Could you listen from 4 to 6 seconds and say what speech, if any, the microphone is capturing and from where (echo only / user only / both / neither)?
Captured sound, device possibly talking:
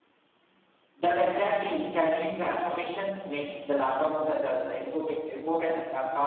echo only